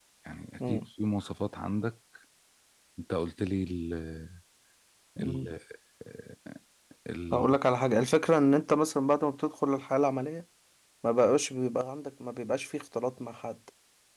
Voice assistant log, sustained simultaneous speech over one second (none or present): none